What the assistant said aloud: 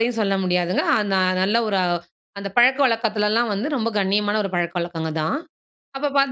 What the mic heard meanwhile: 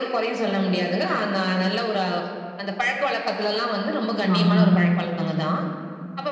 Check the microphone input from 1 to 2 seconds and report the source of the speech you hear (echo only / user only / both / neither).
echo only